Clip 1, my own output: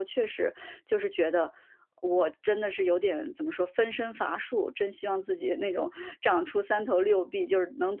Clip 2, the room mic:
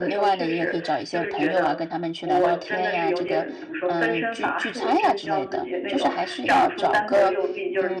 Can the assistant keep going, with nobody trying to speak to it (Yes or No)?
No